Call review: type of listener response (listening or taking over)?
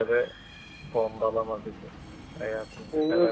taking over